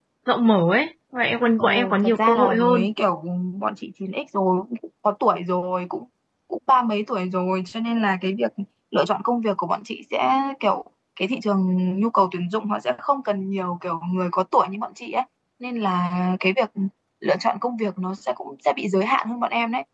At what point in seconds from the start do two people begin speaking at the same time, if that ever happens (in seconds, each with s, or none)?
1.6 s